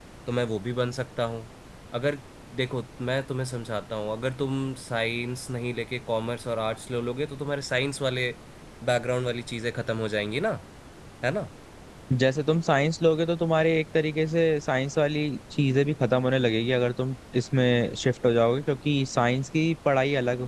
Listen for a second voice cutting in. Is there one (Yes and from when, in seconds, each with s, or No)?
No